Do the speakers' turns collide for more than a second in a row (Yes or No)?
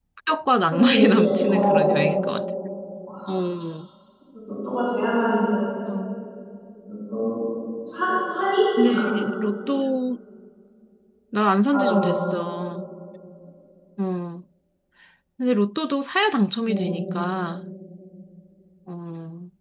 Yes